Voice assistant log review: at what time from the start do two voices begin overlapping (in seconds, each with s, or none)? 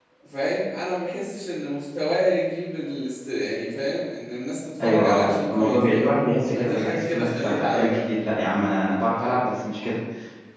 4.8 s